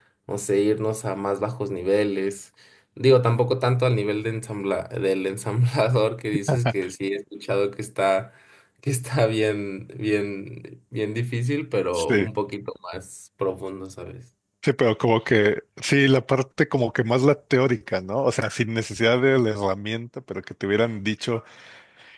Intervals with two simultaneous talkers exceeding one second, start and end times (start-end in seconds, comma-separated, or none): none